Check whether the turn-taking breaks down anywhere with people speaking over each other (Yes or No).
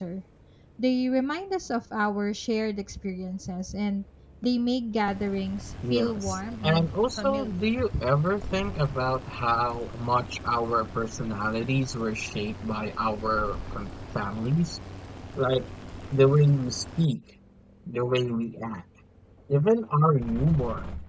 Yes